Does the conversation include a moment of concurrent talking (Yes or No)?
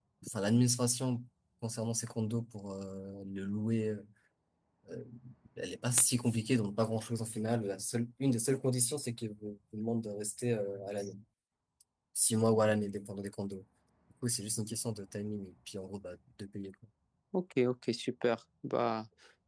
No